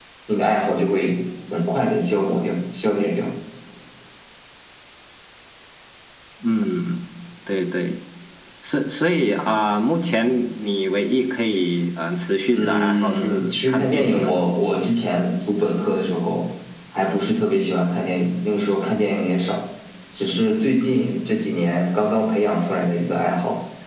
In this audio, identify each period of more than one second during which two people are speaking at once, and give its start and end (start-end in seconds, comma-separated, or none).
12.5-14.4